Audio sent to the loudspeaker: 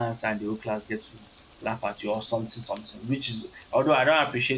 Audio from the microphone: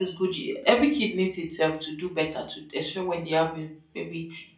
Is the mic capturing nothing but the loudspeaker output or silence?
No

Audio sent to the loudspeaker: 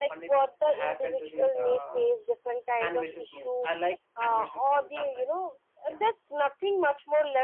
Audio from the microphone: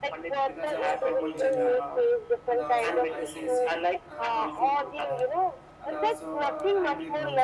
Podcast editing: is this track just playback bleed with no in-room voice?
No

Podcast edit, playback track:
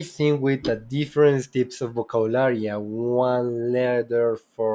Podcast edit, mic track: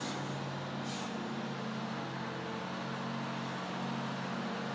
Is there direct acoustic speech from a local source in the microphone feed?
No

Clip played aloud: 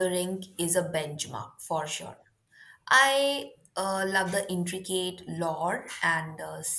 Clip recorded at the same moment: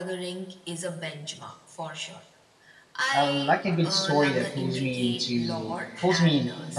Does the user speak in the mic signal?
Yes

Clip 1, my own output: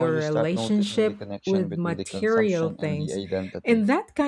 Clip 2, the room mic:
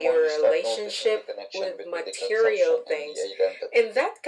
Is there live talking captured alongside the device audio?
No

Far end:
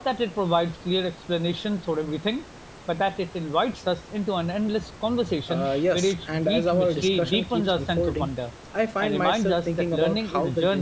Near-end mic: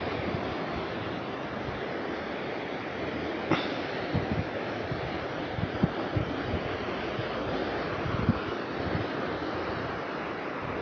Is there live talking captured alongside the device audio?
No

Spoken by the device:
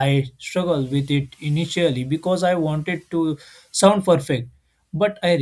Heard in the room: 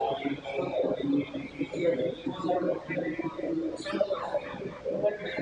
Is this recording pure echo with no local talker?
Yes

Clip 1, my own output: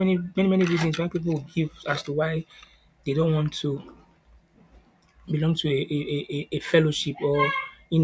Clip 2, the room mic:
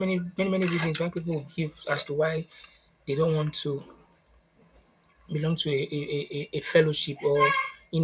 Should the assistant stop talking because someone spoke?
No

